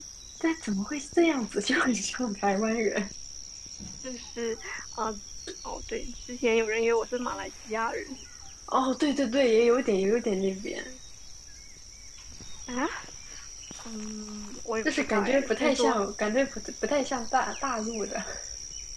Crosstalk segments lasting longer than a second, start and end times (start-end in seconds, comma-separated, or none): 14.8-16.3